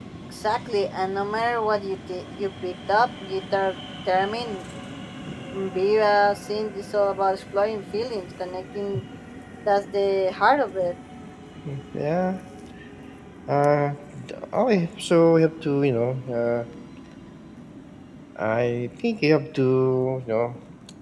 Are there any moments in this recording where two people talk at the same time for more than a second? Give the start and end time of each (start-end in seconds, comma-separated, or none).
none